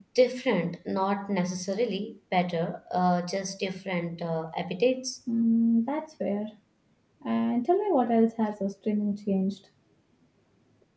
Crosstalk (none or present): none